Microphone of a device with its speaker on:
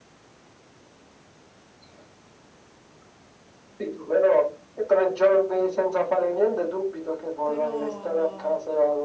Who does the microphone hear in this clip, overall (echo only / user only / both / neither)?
both